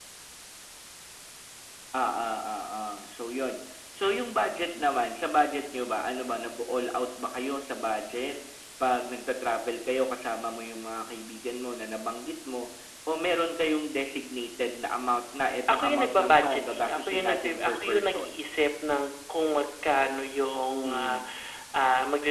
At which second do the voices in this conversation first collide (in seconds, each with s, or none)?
15.7 s